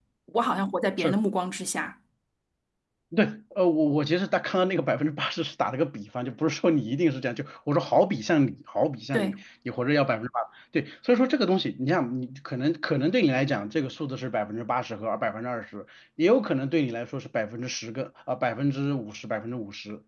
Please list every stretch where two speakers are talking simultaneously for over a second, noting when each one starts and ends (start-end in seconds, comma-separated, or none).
none